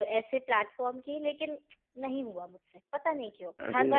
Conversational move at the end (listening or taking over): taking over